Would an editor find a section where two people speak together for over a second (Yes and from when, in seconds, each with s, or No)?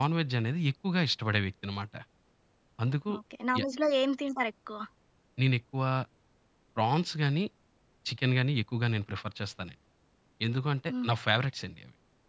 No